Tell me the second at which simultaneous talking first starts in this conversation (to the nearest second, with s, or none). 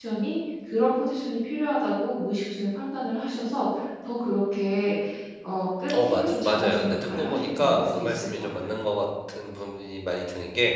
6 s